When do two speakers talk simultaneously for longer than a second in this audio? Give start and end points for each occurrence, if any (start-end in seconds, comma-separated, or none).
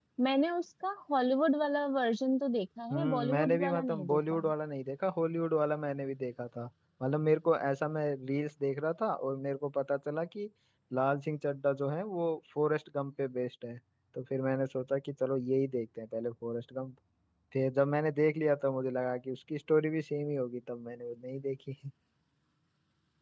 2.9-4.4